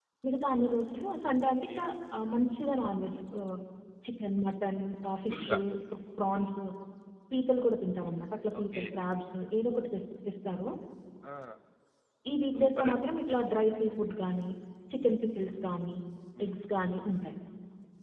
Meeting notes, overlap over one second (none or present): none